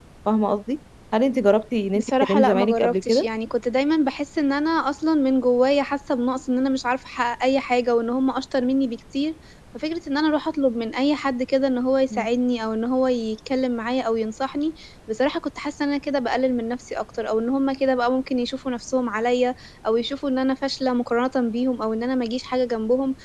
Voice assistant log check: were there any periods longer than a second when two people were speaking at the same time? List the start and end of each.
2.0-3.3

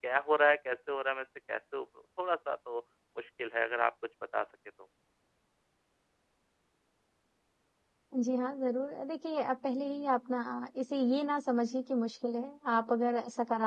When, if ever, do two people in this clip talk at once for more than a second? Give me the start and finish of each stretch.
none

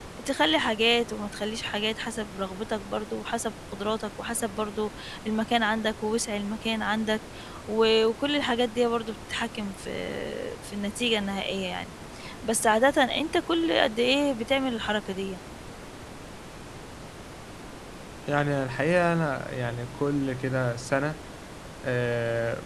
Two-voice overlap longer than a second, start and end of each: none

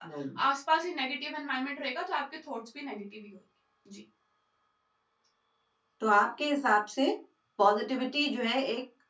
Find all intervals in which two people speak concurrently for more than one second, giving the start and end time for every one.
none

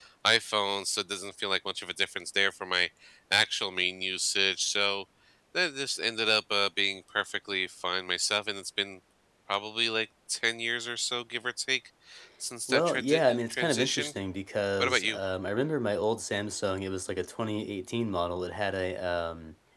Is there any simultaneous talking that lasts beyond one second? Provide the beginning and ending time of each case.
12.7-14.1

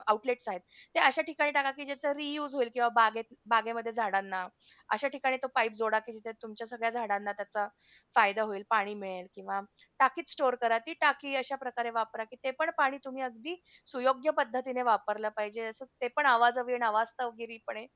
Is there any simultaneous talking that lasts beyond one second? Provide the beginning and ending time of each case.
none

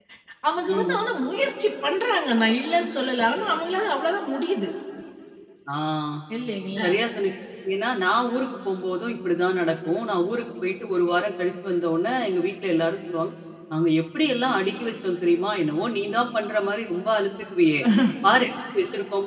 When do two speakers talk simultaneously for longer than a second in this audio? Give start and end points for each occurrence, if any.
none

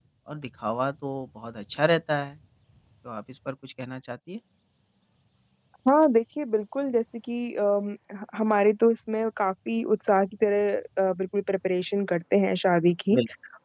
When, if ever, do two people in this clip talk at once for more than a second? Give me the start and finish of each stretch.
none

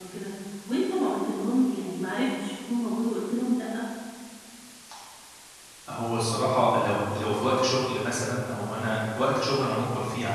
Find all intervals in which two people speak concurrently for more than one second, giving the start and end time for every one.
none

